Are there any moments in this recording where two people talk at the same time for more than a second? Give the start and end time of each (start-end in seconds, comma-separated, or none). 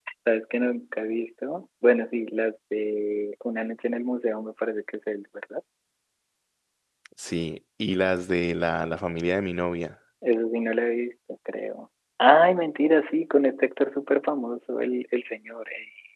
none